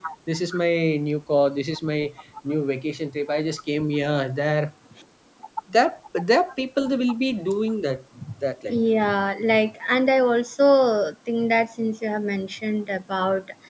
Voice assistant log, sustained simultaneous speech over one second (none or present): none